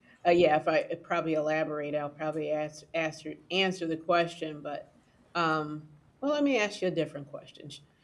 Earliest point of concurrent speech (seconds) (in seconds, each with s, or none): none